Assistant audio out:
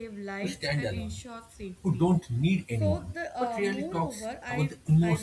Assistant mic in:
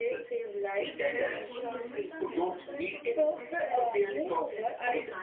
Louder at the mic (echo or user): echo